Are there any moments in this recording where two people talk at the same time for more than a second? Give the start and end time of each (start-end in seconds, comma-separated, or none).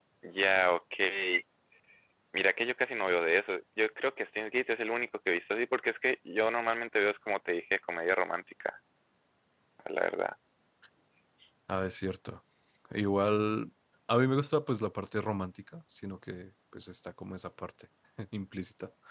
none